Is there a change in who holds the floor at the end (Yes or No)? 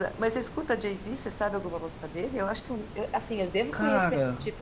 No